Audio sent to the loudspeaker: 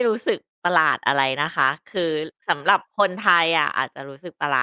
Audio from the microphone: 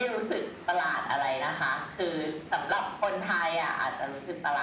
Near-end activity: none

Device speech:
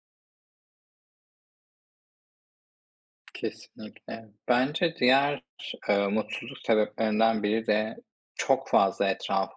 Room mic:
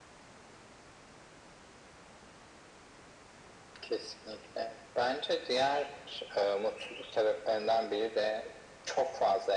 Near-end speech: none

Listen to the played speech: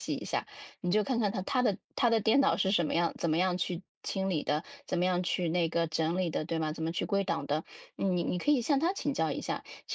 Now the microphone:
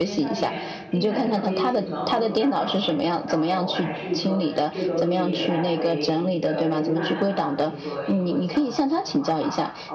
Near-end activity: present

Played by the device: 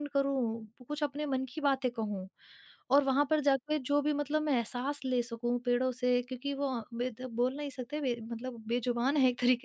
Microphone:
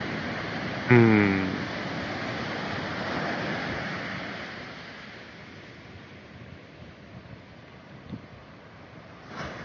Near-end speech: present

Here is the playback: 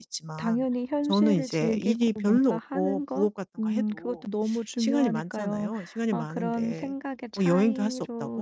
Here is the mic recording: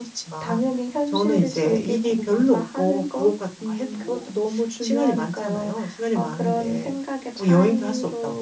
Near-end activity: none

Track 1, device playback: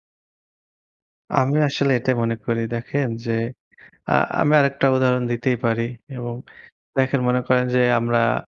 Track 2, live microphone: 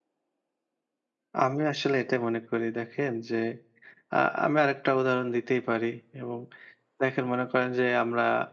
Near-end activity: none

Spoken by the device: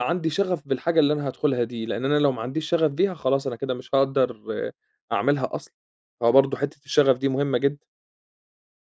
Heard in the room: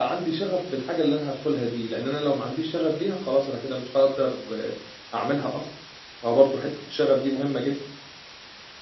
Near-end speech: none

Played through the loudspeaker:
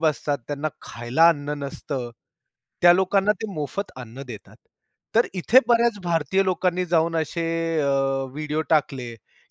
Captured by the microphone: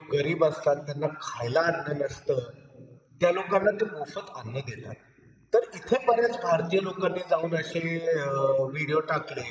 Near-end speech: none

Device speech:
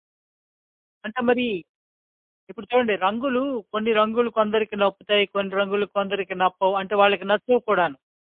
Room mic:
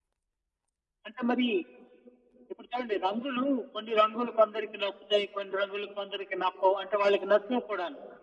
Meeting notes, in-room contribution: none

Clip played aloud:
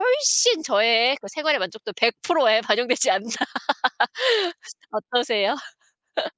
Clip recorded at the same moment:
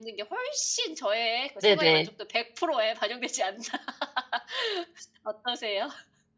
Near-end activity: present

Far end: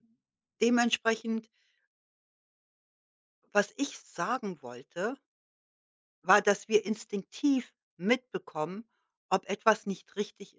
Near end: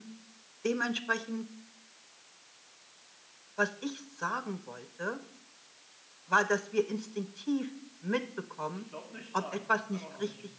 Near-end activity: present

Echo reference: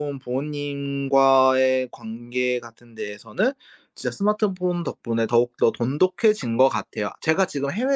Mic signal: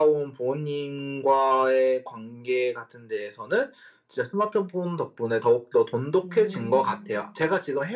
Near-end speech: present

